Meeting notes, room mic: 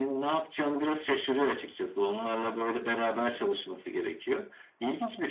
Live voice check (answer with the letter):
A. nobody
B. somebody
A